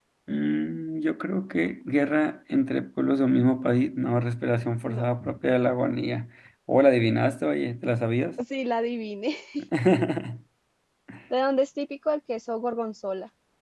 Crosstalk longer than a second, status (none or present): none